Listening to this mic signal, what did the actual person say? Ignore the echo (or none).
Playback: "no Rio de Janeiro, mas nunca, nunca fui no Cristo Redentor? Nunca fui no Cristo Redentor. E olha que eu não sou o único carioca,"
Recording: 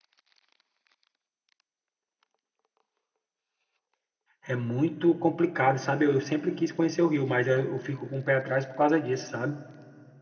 É muito complicado, sabe? Eu sempre quis conhecer o Rio, mas eu, eu fico com o pé atrás por causa disso, sabe?